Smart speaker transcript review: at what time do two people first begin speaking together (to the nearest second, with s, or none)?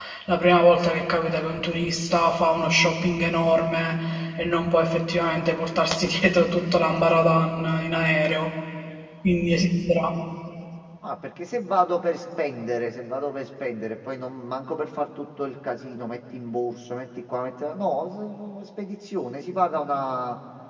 none